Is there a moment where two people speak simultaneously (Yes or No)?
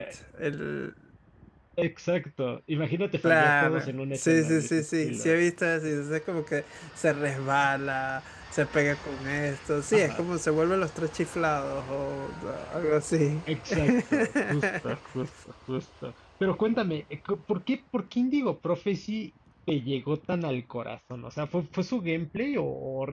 Yes